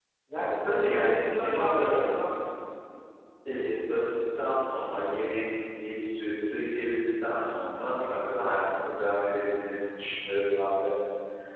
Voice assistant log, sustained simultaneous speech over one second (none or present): present